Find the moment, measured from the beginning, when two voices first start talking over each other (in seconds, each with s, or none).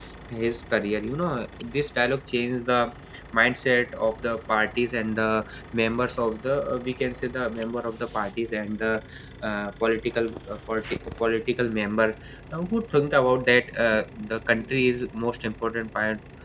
none